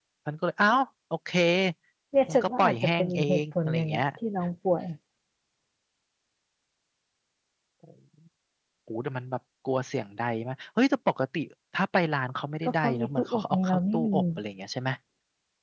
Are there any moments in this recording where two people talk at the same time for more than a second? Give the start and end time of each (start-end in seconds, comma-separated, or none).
2.3-4.0, 12.8-14.2